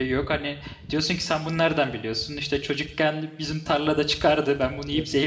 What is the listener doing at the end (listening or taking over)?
listening